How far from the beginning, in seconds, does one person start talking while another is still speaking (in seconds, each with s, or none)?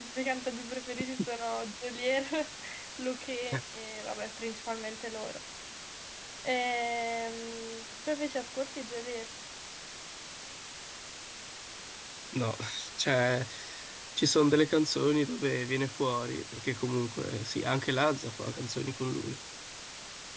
none